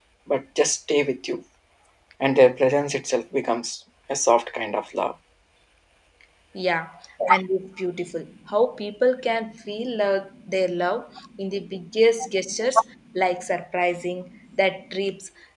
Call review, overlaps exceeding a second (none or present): none